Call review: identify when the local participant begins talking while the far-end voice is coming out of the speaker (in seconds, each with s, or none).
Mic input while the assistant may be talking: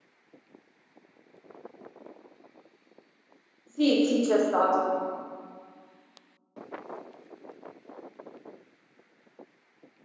3.7 s